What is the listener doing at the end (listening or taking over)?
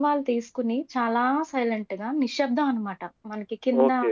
taking over